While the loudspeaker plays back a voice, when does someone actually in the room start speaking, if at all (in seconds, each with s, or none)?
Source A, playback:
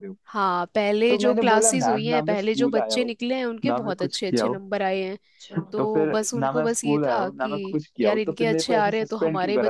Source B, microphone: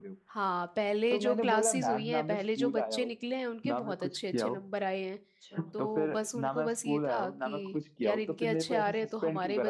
none